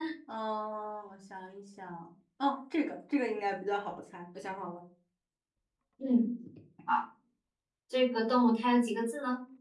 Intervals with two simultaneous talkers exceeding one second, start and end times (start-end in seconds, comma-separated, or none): none